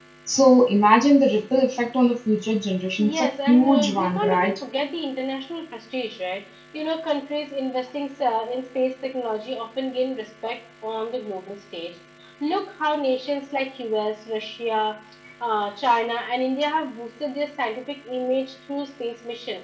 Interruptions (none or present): present